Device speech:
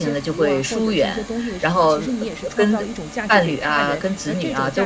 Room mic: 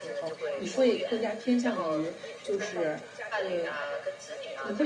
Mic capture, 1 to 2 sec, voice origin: both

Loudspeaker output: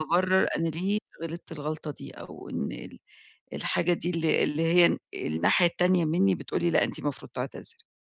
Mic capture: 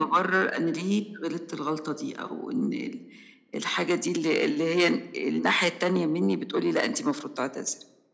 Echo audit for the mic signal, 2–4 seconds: echo only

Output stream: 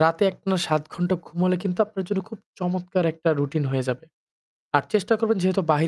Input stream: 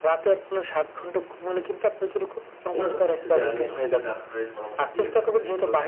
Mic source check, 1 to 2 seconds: echo only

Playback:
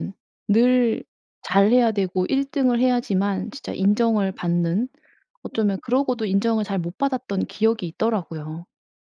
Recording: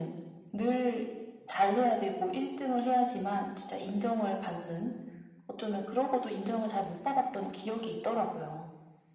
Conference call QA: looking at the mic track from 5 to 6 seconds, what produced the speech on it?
echo only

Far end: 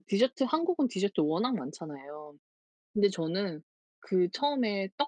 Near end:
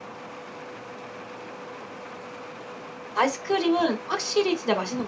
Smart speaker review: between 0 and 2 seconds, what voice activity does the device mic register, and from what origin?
neither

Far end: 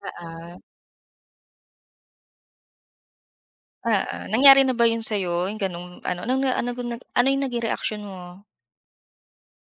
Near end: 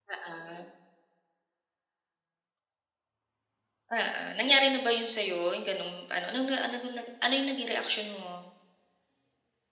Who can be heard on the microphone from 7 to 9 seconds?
echo only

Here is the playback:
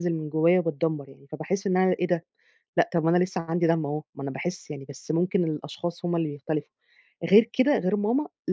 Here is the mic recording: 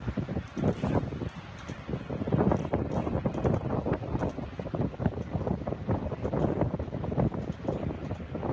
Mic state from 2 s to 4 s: neither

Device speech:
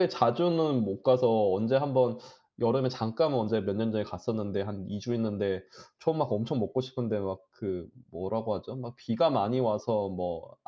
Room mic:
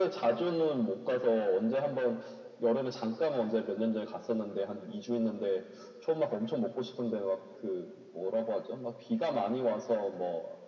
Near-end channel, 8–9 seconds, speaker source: echo only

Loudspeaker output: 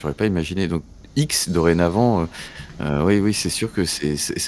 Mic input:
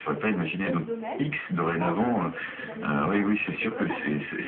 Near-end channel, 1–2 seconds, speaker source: both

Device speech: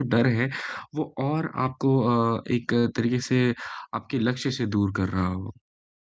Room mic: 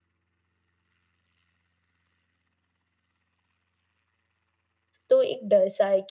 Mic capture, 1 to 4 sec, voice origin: neither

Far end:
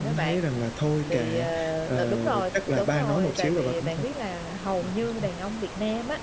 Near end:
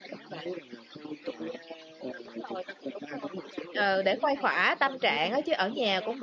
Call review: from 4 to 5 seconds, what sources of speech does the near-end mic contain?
both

